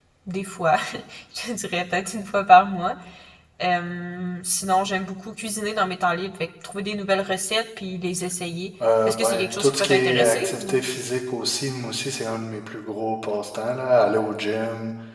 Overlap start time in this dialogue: 9.1 s

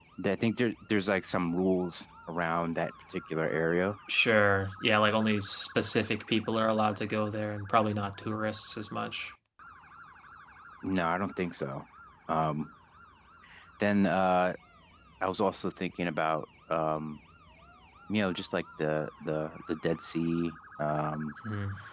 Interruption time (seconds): none

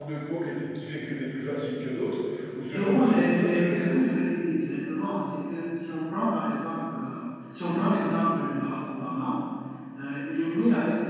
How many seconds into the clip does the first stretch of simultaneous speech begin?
2.7 s

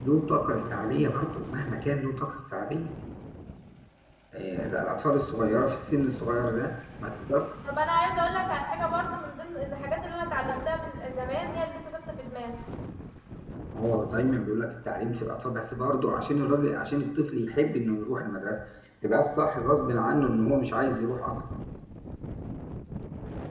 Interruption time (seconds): none

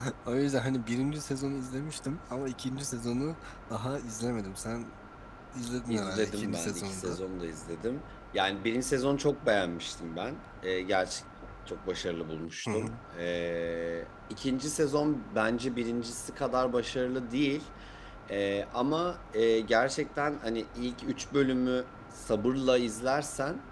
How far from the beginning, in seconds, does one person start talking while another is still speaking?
5.9 s

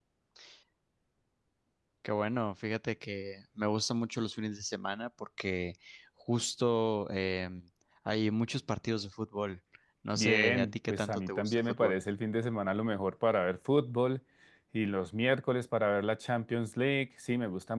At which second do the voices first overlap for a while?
10.2 s

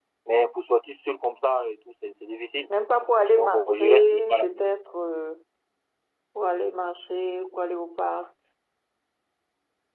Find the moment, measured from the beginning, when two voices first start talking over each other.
3.4 s

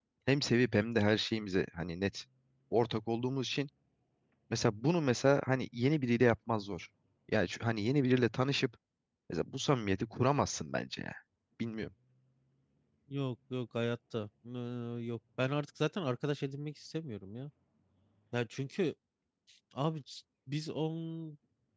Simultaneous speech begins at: none

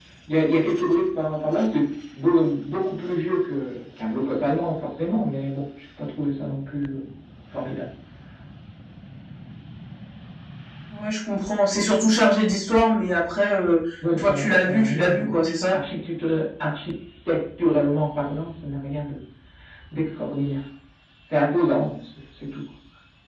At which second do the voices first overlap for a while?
14.0 s

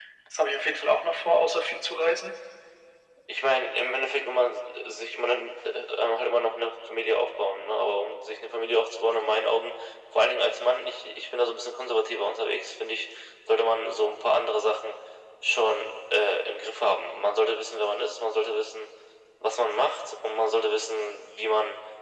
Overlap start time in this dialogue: none

